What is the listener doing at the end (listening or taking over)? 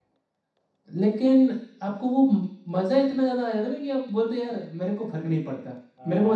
taking over